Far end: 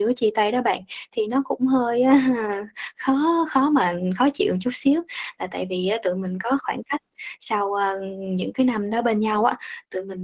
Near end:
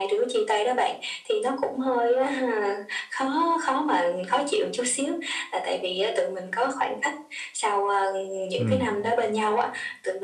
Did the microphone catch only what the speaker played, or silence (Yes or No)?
No